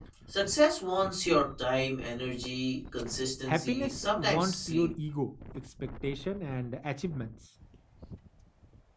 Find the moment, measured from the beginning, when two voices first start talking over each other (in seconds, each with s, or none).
3.5 s